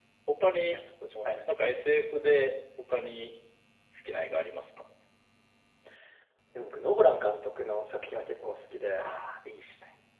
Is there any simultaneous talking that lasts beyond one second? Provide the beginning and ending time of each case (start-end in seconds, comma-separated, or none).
none